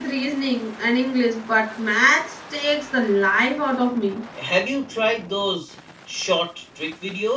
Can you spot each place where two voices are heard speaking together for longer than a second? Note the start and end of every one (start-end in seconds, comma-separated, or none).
none